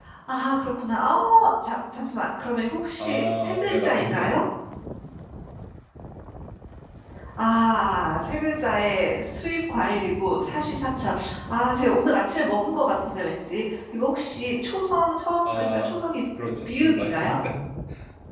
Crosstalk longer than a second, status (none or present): present